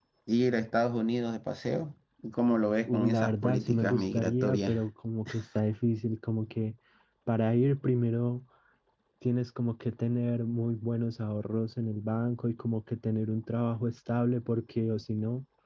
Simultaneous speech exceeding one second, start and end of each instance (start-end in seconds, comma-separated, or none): 2.9-4.8